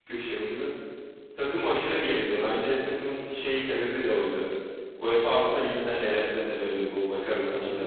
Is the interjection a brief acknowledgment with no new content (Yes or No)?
No